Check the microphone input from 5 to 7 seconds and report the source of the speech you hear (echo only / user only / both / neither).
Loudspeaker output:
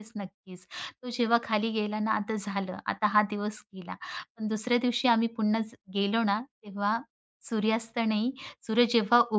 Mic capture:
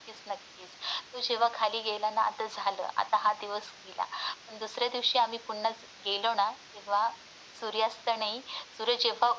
echo only